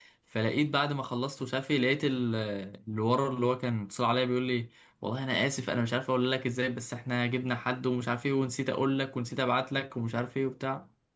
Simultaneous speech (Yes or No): No